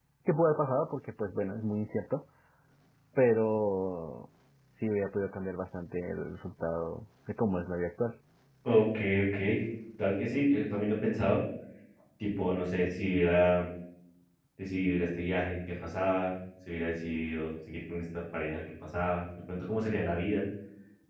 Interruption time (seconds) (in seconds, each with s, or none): none